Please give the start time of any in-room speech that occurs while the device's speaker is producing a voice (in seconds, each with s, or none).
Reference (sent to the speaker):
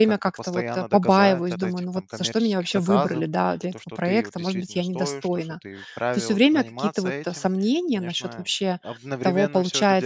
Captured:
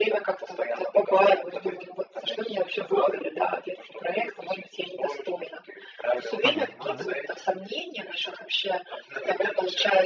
6.4 s